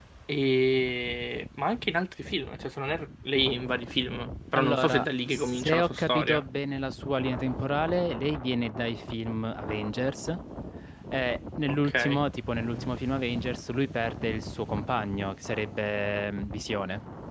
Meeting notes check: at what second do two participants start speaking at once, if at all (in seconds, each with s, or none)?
4.5 s